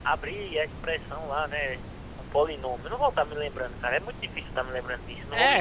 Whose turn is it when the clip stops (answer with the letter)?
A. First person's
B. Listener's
B